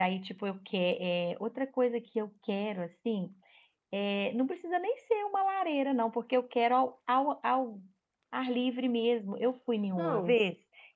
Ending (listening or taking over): listening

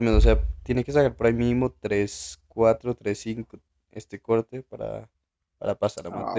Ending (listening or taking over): taking over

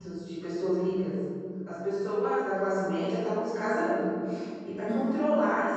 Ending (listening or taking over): listening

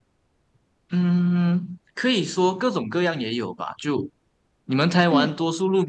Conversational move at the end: listening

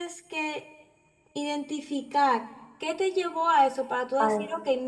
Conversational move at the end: listening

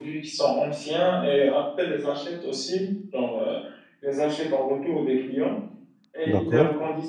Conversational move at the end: listening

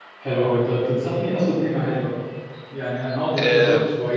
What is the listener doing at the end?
listening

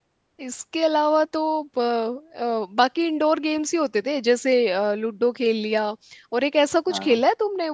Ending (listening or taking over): listening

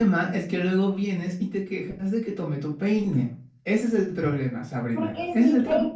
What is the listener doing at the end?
taking over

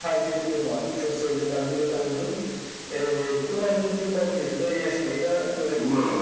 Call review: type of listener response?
taking over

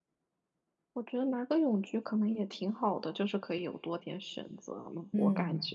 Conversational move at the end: taking over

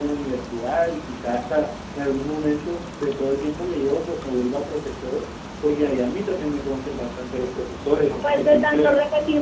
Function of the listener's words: taking over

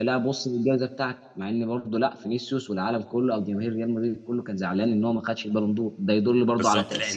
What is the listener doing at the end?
taking over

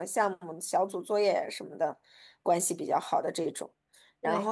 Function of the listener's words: listening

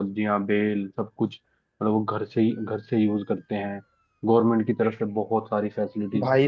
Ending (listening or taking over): taking over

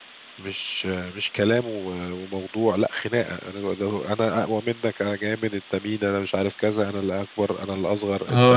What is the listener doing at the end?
taking over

